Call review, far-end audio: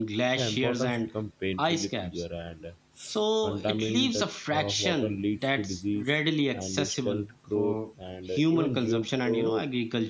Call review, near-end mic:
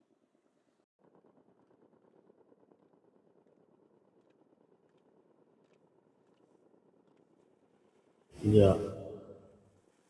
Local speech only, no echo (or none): Yeah,